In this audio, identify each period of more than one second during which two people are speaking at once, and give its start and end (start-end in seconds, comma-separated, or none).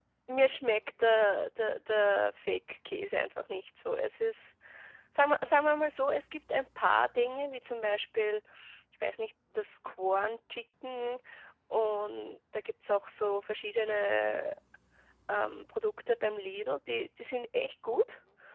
none